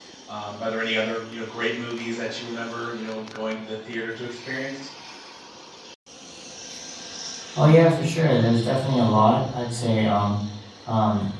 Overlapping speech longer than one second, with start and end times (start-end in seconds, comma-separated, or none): none